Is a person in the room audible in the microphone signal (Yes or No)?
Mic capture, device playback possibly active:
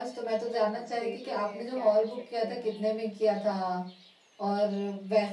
Yes